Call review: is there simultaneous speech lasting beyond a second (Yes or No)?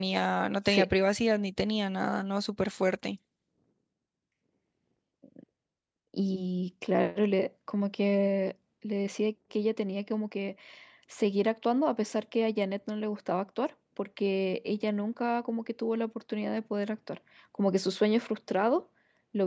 No